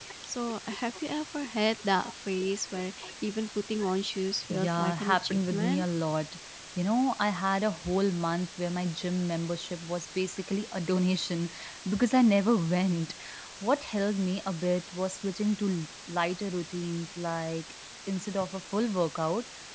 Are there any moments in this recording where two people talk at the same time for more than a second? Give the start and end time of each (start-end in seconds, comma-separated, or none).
4.5-5.8